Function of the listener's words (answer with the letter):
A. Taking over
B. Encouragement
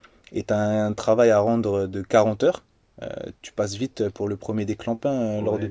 A